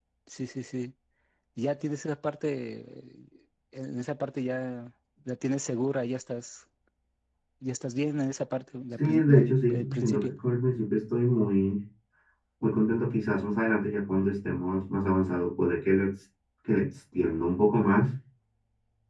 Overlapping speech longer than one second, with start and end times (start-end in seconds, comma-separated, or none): 9.0-10.3